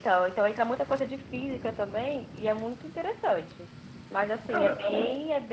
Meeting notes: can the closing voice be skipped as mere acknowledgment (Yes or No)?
Yes